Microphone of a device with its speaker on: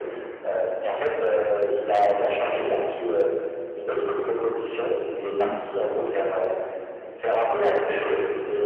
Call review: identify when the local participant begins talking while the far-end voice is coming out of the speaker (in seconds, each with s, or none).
5.3 s